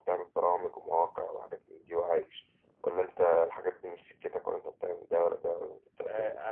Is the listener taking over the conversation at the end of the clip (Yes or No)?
Yes